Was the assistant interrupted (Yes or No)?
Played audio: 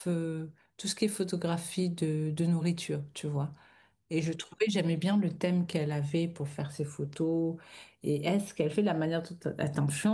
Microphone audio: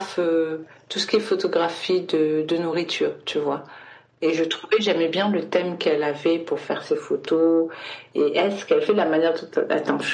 No